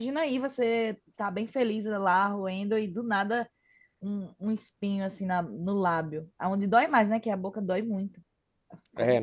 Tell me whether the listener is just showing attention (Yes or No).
No